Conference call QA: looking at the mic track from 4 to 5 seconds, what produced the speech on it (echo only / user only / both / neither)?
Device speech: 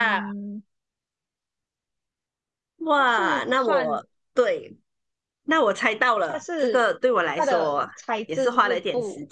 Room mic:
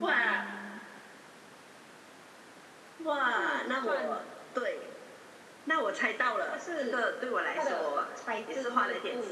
echo only